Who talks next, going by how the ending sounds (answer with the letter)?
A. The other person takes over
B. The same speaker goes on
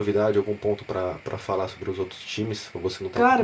A